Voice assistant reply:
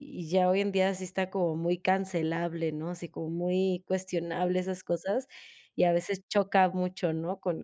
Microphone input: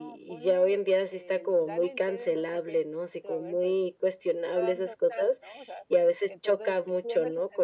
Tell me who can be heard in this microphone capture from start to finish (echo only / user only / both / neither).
both